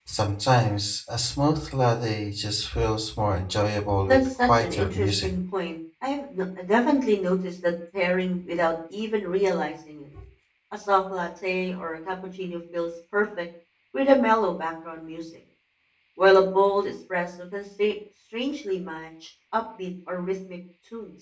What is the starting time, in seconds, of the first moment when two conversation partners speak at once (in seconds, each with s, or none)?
4.1 s